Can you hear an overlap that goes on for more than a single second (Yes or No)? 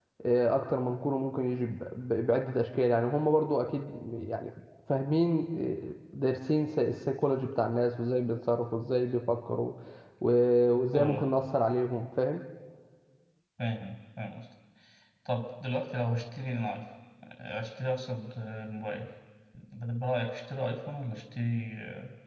No